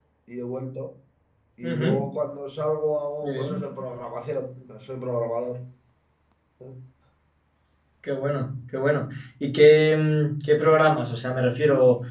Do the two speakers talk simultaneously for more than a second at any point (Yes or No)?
No